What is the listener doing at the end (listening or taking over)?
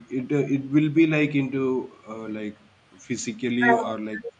listening